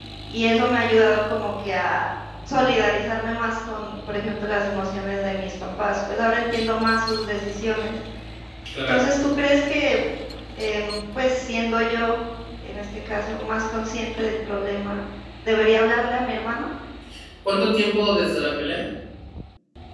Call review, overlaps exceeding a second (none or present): none